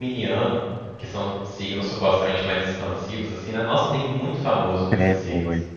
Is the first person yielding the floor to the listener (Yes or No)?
Yes